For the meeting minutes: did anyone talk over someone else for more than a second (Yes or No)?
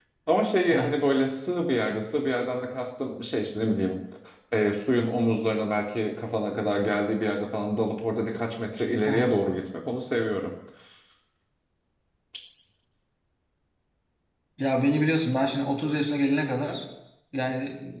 No